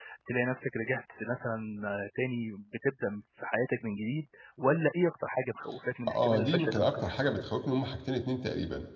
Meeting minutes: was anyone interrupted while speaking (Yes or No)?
Yes